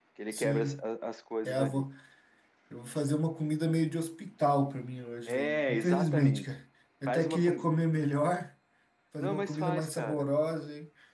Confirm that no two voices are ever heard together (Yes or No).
No